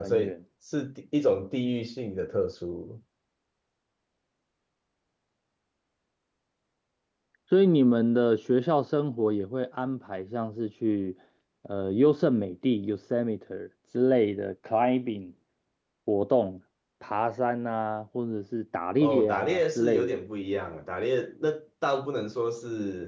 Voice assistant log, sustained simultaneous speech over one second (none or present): present